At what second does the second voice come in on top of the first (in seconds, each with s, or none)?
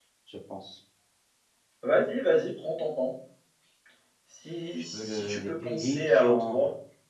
4.9 s